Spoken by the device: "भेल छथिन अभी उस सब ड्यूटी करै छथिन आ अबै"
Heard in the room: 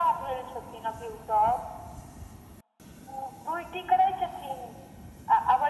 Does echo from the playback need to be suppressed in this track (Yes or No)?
Yes